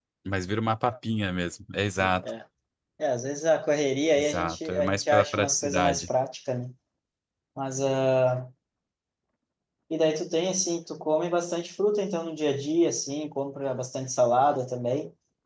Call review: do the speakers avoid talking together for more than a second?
No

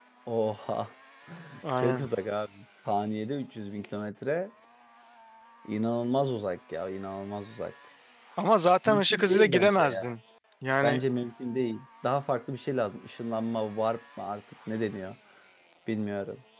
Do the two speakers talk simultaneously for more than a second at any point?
Yes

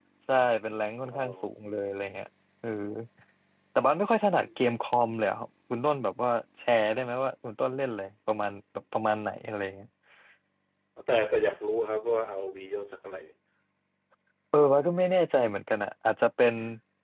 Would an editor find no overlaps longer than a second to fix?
Yes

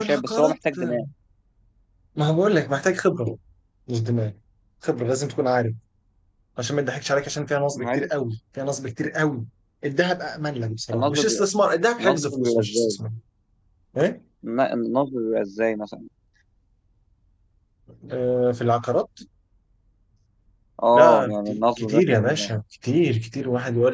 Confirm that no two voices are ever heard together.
No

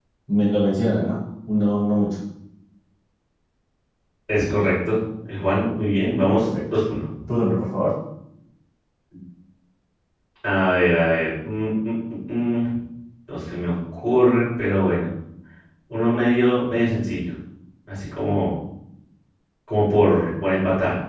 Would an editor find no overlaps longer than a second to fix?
Yes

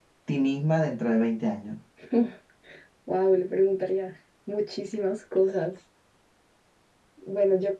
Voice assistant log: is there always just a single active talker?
Yes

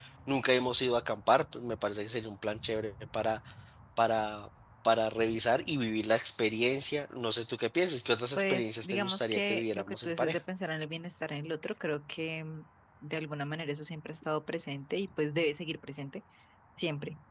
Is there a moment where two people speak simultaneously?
Yes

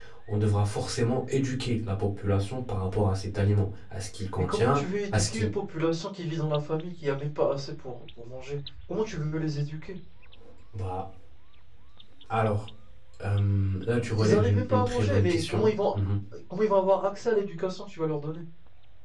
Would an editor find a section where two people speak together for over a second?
Yes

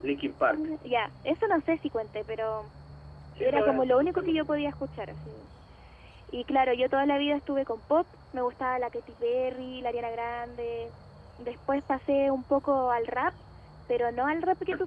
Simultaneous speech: Yes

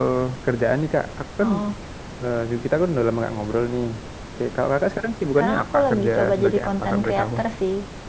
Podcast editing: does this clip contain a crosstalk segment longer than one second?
Yes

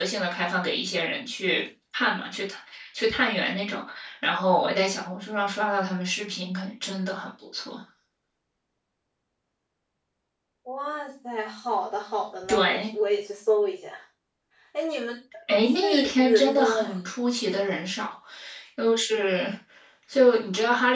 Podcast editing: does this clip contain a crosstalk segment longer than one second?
Yes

